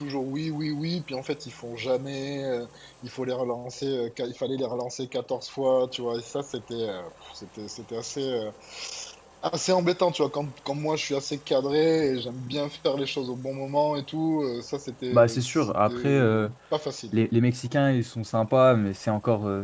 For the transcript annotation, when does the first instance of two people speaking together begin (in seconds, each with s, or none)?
15.1 s